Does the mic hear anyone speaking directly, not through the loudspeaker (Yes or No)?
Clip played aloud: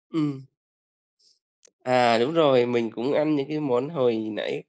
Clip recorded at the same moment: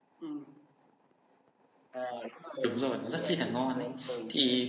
Yes